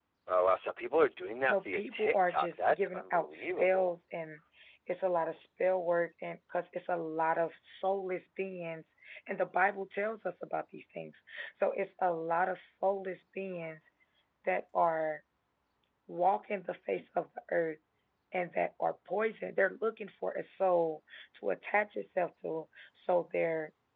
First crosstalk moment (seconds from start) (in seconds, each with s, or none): 1.5 s